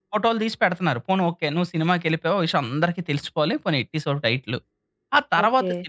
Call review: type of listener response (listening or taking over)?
listening